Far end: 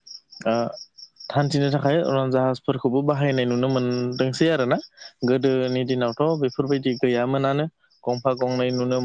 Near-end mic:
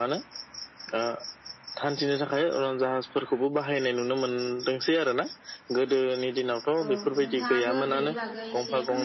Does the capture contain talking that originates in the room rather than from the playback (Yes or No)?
Yes